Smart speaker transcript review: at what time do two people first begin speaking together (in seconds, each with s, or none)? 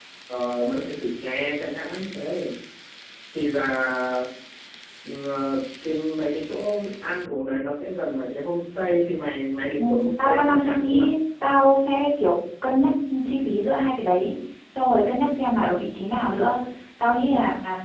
9.8 s